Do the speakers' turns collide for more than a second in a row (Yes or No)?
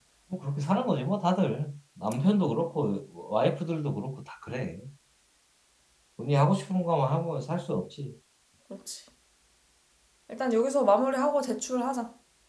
No